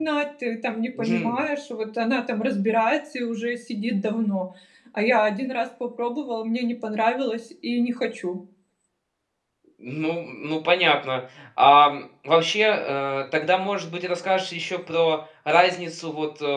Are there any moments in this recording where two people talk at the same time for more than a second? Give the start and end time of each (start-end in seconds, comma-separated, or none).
none